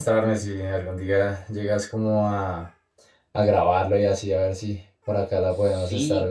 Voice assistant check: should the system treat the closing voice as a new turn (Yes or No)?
Yes